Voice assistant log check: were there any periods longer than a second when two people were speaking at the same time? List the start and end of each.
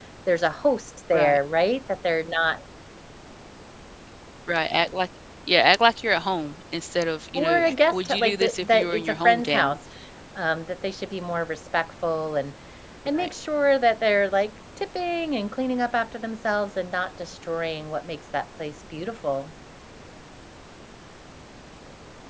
7.3-9.8

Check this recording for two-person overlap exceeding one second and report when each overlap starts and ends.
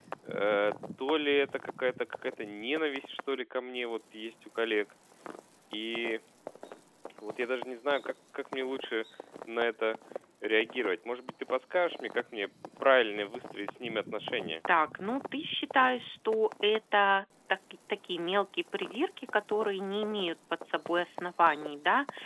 none

